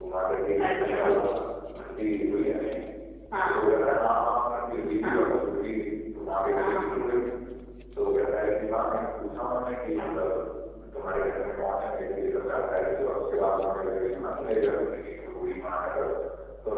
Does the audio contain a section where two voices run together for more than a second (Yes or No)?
No